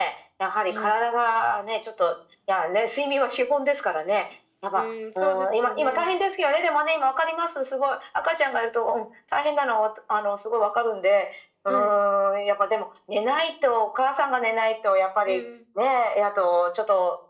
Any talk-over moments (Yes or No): Yes